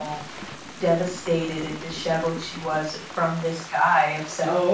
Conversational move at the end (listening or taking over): listening